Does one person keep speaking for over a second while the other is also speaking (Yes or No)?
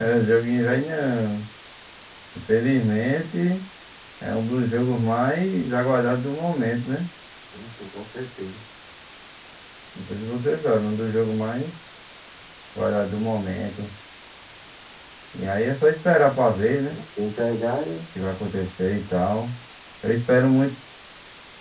No